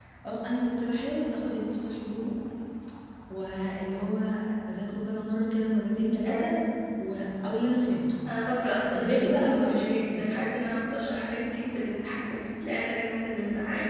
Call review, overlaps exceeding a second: present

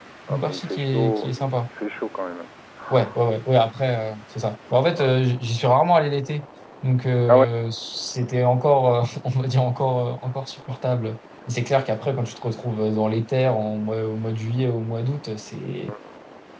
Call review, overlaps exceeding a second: present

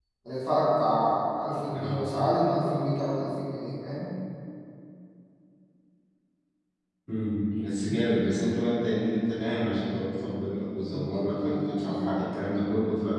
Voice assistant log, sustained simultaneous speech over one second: present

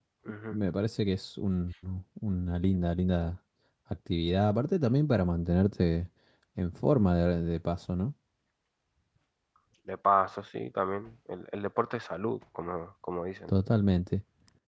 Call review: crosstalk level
none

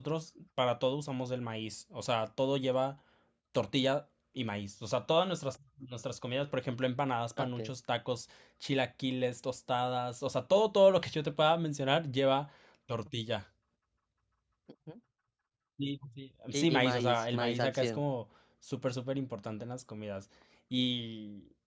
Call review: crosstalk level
present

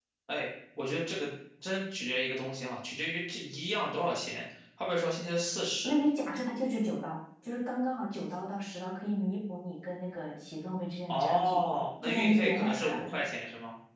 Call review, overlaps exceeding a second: present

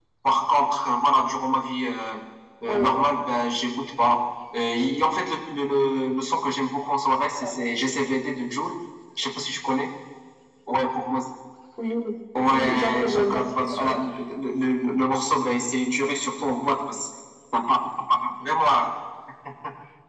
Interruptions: present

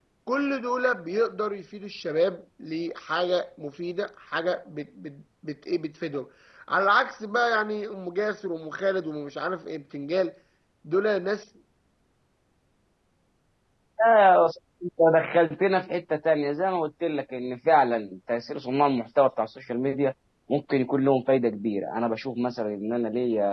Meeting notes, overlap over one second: none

